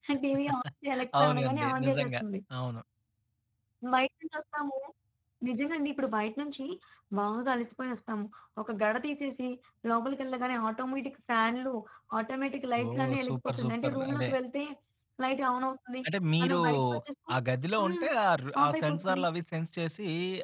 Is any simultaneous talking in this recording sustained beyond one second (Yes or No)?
Yes